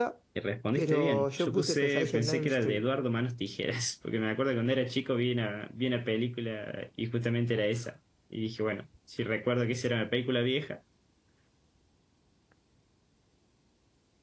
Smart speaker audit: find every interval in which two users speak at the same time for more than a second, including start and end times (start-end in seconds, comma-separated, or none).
0.8-2.8